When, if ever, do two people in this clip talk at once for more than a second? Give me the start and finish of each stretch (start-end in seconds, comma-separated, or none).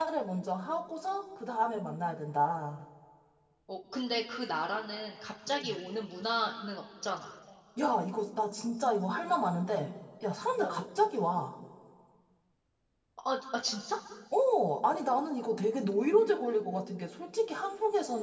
none